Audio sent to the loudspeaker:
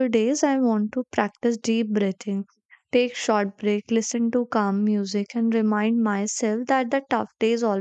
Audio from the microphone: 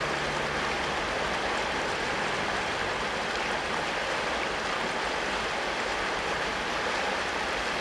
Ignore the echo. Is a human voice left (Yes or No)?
No